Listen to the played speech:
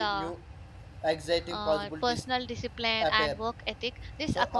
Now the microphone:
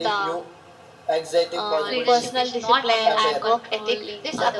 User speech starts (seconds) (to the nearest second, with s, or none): 2 s